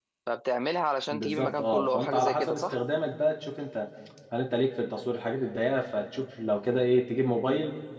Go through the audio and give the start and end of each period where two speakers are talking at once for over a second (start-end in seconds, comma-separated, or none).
1.1-2.8